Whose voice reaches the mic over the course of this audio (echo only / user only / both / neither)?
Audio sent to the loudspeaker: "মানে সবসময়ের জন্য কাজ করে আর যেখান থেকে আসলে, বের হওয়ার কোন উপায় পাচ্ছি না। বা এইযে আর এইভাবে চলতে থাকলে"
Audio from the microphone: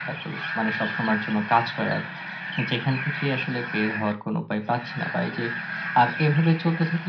echo only